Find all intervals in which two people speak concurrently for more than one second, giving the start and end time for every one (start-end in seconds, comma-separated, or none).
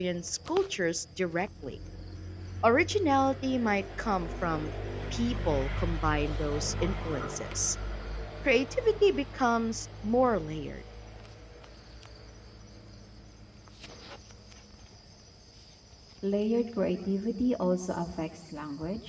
none